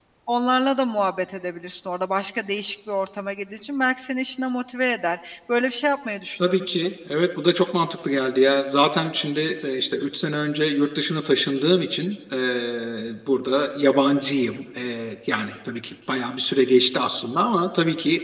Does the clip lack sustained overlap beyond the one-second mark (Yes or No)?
Yes